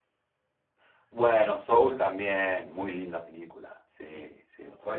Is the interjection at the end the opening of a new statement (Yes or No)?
Yes